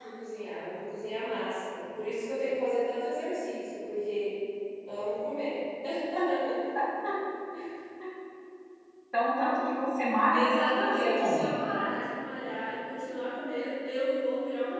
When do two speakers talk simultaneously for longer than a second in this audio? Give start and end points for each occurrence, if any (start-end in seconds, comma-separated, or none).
10.3-11.6